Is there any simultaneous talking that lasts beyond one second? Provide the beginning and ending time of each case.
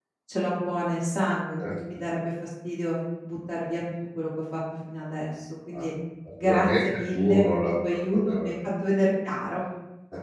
6.4-8.5

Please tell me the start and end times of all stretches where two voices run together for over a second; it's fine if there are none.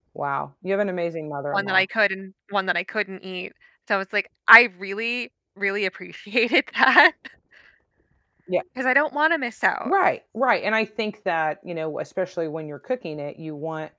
none

